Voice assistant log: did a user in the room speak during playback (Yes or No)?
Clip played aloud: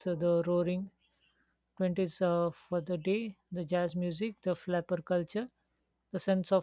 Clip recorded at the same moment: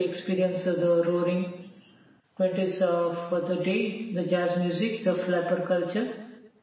No